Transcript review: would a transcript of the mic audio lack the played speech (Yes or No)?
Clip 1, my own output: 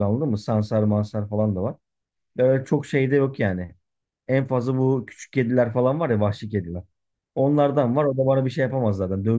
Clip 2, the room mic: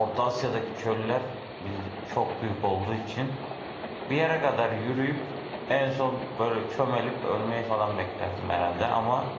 Yes